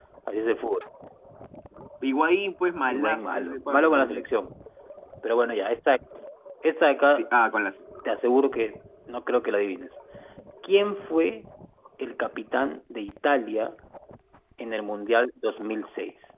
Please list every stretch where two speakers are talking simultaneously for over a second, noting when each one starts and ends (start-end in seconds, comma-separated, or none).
2.9-4.2